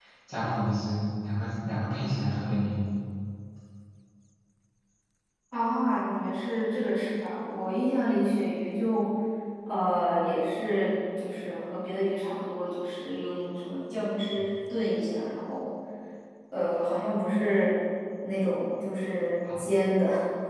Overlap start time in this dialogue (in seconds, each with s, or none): none